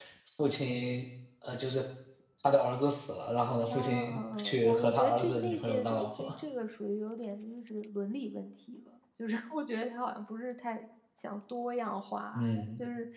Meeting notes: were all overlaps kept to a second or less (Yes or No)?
No